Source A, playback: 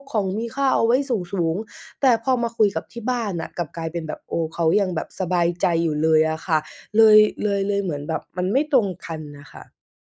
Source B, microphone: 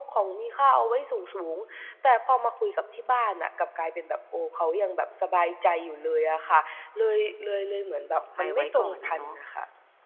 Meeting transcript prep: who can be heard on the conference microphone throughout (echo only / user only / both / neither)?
both